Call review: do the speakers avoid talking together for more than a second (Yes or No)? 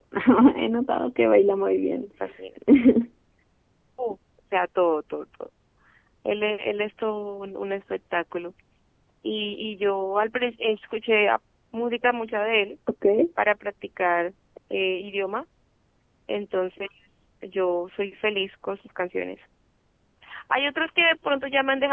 Yes